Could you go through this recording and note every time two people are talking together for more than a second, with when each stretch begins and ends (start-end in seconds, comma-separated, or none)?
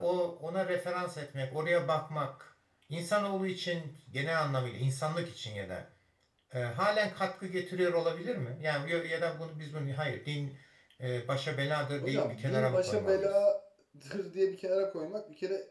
12.0-13.4